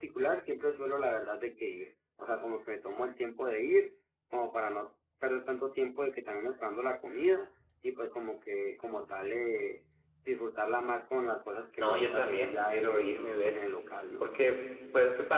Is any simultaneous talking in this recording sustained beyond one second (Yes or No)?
Yes